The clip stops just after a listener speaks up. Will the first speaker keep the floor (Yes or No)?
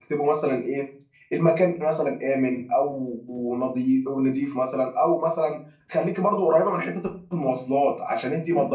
Yes